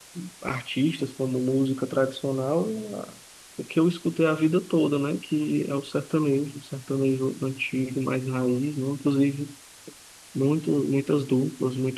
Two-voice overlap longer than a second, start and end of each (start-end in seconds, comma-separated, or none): none